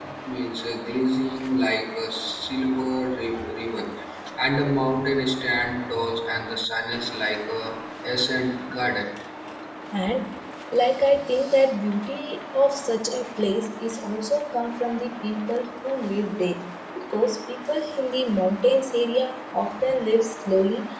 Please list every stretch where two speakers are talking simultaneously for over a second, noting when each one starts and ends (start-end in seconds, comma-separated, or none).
none